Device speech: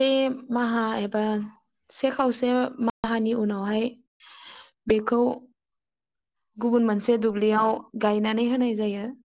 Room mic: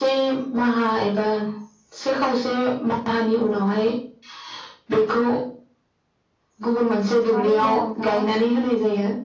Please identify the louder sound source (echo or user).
echo